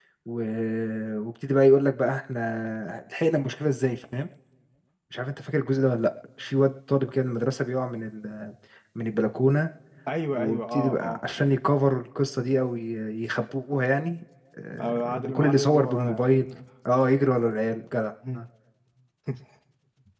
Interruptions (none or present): present